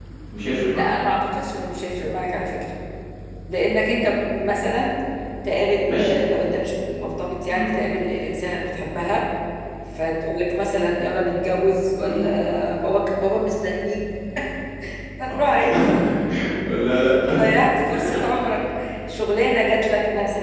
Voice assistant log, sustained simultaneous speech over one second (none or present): none